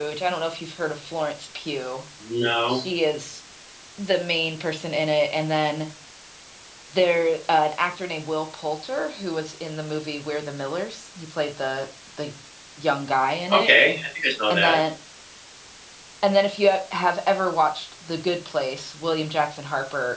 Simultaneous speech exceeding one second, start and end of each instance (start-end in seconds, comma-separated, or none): none